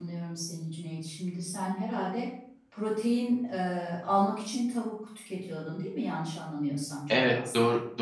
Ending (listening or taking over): taking over